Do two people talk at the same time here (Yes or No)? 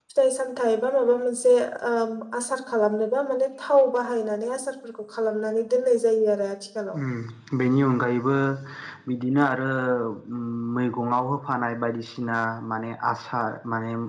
No